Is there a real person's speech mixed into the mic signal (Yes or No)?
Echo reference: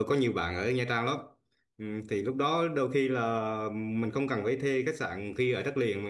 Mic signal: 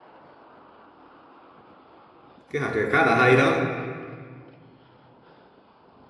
Yes